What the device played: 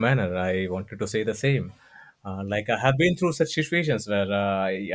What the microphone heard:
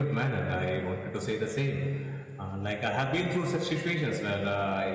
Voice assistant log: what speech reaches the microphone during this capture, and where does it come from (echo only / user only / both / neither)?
echo only